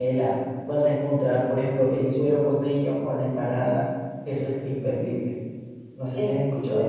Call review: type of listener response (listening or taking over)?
taking over